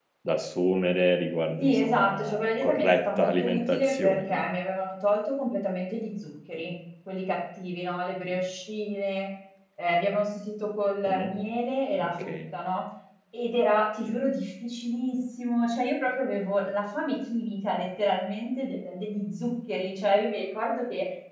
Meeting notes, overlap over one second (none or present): present